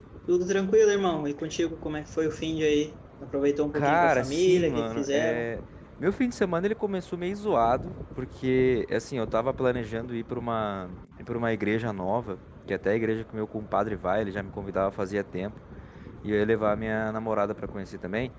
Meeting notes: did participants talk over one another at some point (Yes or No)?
Yes